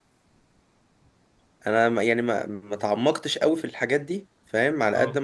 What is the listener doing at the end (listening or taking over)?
listening